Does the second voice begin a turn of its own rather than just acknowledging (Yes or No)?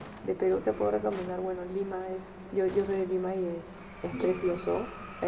No